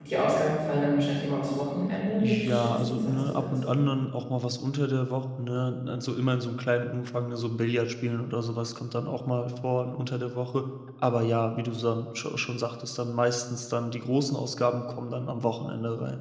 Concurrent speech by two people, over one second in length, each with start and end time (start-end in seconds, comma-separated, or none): 2.1-3.7